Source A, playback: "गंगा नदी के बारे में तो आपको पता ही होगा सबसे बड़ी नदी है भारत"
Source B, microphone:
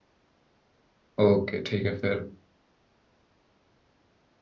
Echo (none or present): none